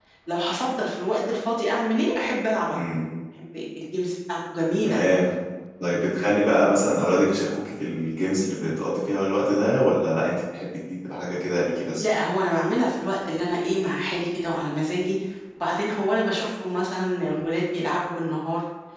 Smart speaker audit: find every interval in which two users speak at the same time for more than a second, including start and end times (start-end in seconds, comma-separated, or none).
none